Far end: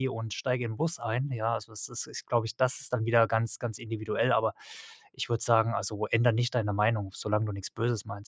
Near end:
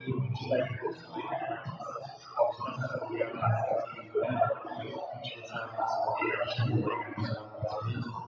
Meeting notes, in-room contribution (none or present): none